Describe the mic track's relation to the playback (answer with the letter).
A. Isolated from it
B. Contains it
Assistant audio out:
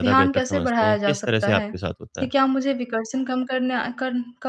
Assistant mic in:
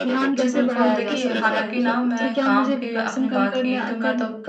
B